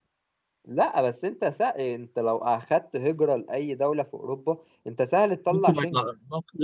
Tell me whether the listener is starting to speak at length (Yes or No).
Yes